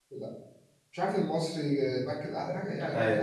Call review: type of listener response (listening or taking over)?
listening